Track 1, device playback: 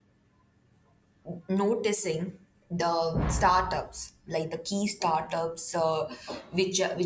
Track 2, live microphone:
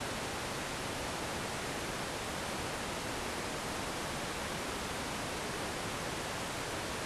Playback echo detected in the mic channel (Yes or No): No